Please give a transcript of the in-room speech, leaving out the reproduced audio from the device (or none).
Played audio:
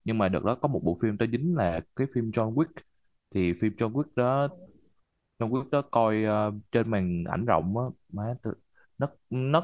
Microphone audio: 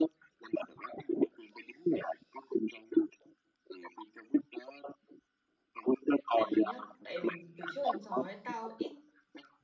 tại vì nhá tại vì mình từ trước đến giờ ấy tao ít